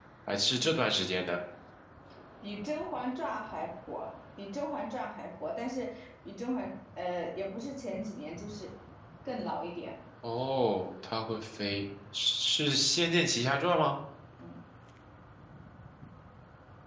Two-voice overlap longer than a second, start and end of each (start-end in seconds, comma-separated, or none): none